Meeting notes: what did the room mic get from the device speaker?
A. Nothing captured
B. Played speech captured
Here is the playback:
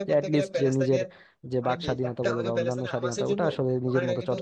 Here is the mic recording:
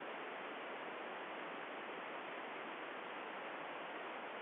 A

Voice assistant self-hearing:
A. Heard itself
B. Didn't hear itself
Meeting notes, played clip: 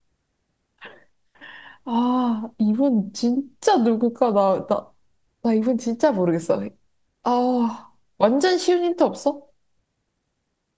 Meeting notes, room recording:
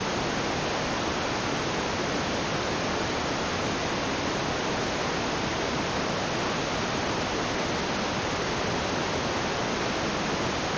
B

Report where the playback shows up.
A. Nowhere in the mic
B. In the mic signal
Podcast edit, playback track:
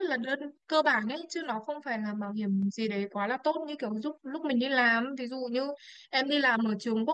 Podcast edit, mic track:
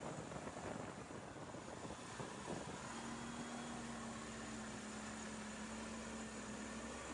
A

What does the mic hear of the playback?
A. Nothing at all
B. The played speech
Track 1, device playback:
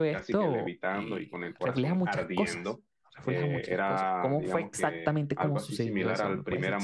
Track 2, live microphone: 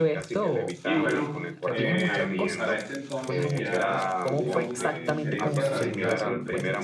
B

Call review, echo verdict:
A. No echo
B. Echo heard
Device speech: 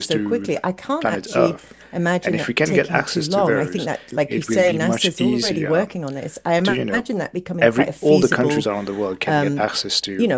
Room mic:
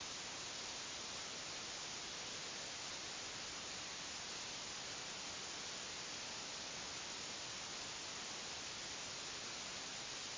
A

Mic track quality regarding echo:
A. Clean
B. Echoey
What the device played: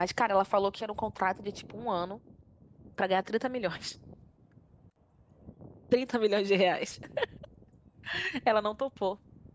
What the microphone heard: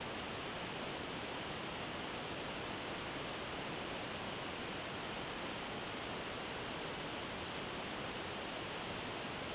A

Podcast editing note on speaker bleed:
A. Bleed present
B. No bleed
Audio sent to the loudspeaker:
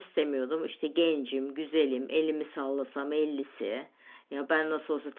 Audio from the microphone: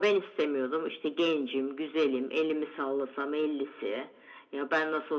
A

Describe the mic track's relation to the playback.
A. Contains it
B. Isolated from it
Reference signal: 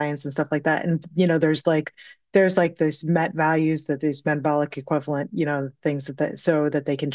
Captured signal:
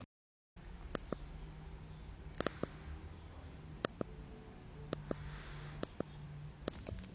B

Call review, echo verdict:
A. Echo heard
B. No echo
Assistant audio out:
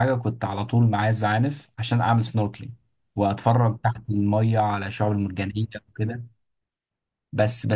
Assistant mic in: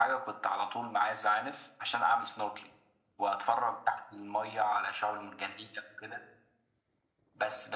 A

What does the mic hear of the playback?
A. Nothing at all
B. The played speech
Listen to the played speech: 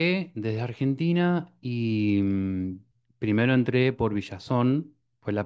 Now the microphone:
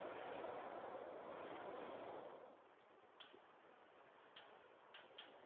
A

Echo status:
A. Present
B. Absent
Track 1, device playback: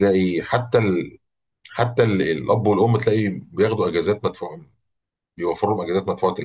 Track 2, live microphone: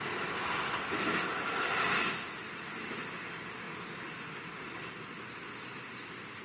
B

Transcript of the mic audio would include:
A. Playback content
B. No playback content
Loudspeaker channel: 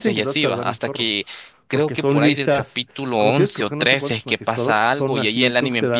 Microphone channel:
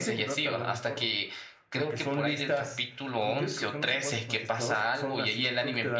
A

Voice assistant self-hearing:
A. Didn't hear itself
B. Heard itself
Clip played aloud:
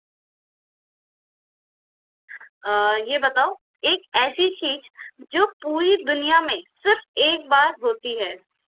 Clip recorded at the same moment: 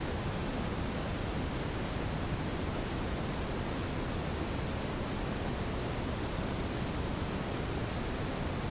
A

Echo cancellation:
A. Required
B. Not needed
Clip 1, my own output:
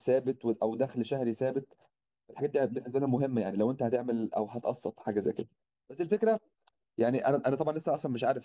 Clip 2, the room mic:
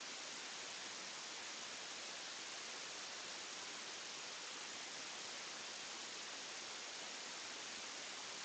B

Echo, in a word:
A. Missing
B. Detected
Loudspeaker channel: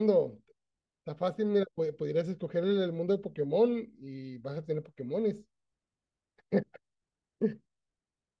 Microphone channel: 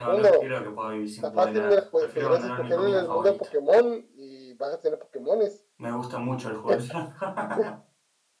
B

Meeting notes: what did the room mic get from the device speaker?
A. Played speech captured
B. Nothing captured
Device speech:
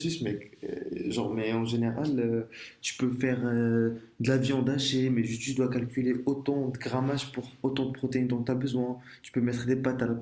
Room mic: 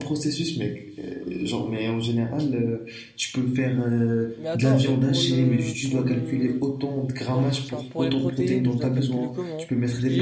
A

